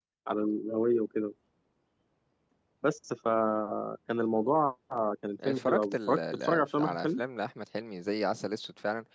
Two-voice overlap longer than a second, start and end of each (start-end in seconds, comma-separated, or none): 5.5-7.2